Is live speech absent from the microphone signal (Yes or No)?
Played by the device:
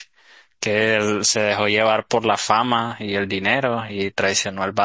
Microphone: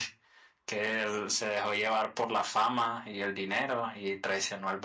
Yes